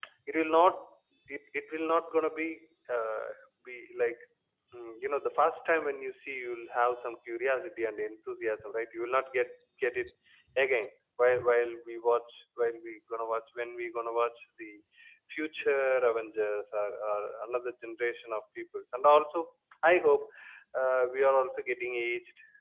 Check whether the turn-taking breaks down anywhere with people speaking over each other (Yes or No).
No